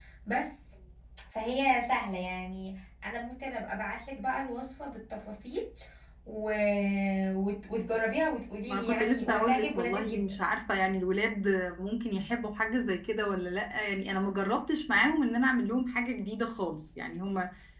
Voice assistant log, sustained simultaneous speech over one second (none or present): present